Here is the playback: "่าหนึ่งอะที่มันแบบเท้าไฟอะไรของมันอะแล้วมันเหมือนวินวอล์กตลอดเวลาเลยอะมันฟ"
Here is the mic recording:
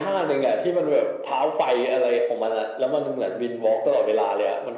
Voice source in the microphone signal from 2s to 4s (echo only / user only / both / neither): echo only